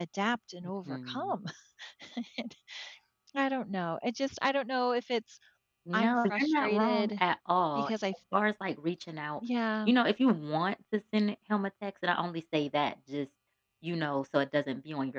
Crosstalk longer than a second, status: present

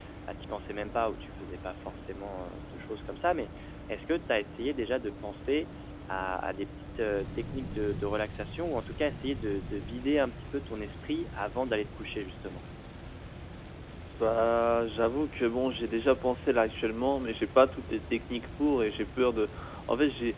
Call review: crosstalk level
none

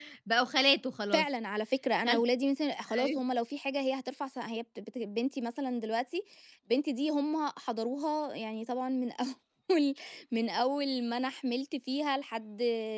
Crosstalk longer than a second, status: none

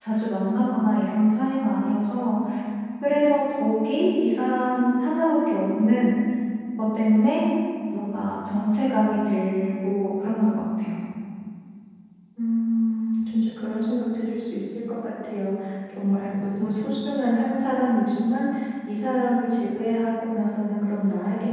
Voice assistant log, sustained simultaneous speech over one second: none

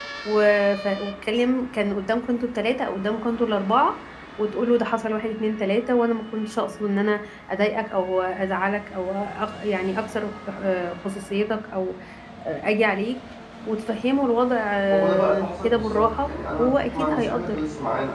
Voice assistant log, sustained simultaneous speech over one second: present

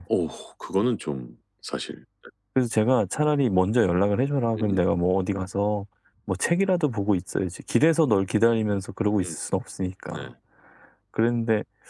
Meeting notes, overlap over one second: none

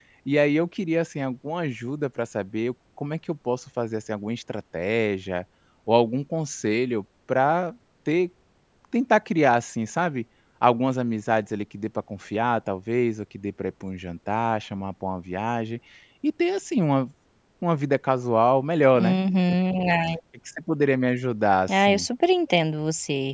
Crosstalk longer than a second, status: none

